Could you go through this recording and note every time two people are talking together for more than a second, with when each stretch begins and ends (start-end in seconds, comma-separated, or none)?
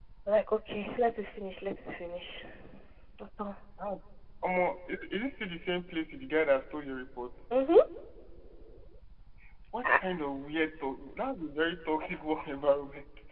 none